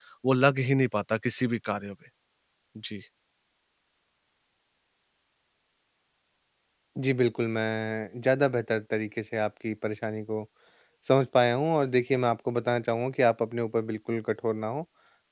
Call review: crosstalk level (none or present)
none